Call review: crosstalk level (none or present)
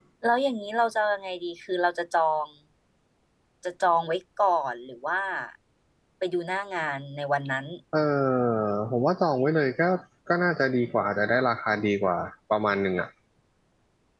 none